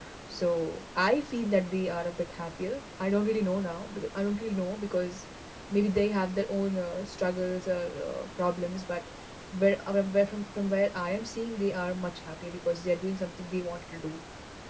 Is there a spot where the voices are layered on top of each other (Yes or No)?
No